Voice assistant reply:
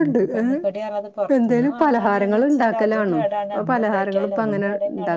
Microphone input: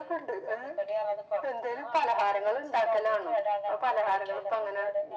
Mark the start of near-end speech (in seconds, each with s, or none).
none